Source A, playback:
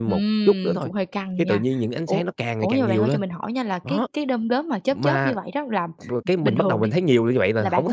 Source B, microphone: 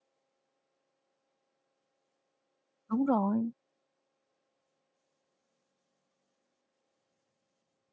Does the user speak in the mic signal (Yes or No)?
Yes